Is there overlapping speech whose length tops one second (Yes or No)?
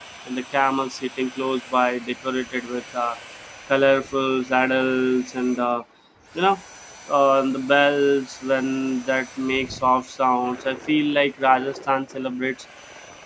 No